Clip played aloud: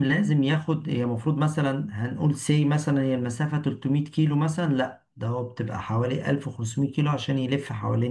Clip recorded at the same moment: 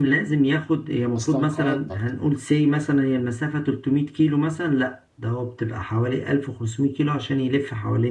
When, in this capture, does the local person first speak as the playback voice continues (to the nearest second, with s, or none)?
1 s